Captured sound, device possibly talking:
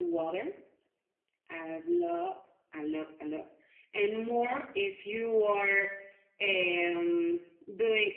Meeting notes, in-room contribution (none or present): none